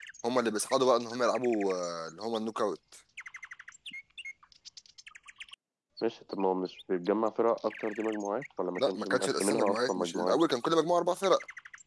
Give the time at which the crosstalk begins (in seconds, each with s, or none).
8.8 s